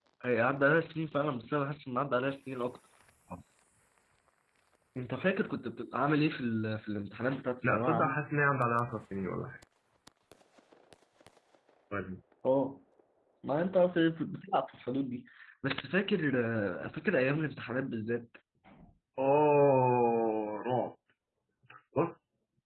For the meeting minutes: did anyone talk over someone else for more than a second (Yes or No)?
No